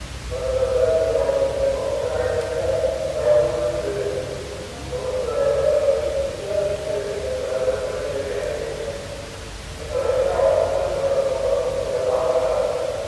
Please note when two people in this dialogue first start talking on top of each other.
none

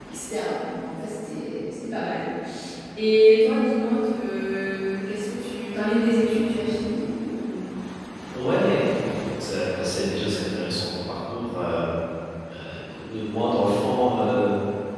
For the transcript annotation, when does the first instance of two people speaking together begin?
none

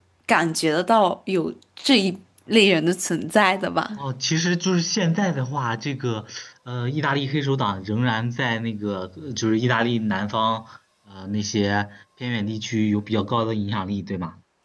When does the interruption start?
none

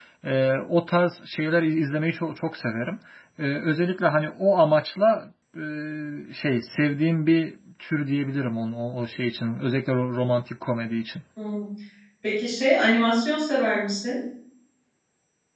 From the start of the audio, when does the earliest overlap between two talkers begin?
none

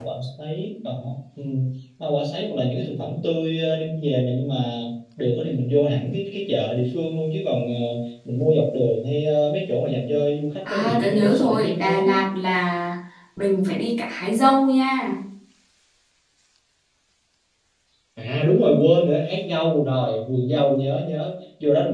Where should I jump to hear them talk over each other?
10.7 s

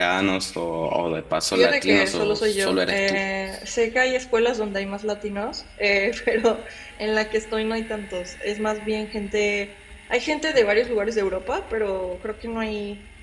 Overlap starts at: 1.5 s

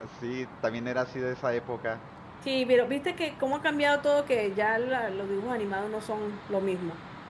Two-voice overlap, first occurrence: none

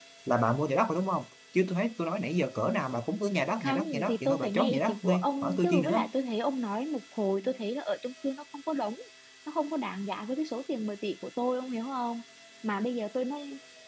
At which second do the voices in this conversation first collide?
3.6 s

